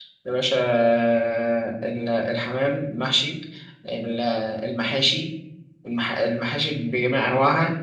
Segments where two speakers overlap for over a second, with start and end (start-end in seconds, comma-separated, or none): none